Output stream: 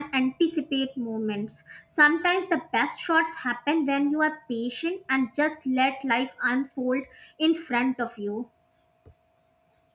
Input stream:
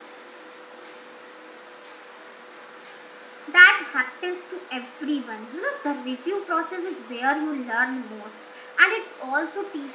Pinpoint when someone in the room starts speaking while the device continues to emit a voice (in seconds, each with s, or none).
3.5 s